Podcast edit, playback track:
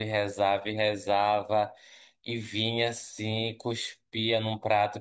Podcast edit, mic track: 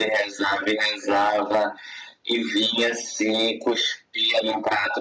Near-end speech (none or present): none